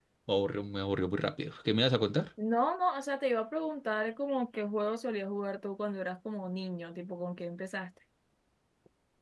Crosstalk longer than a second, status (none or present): none